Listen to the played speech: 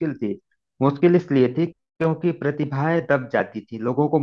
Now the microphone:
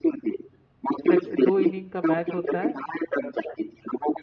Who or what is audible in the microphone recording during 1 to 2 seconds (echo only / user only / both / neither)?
both